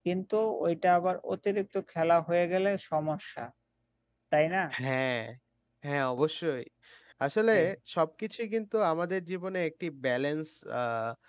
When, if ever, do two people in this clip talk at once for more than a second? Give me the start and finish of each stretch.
none

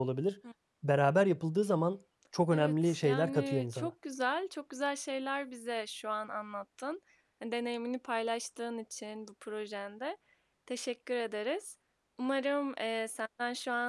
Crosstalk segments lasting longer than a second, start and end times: 2.5-3.9

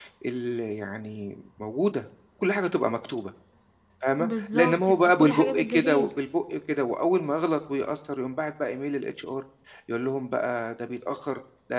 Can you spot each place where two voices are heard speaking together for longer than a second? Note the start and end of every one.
4.2-6.1

